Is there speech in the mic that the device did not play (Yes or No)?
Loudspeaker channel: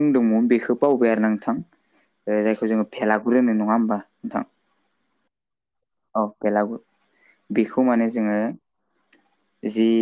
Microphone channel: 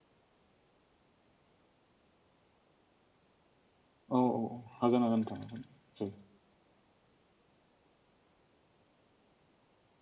Yes